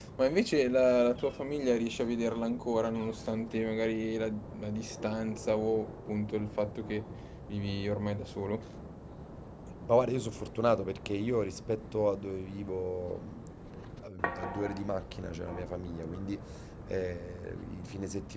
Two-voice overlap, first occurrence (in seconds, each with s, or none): none